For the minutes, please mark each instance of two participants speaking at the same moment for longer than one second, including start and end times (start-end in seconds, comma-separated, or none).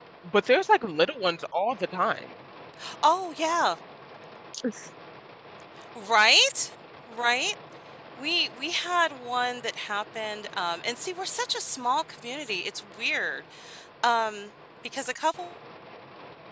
none